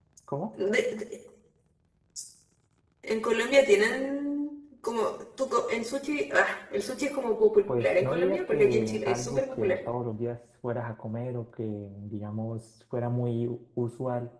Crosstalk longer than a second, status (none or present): present